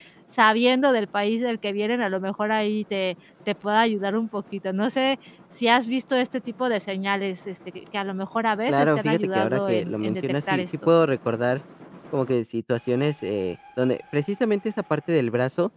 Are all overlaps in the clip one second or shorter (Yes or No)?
No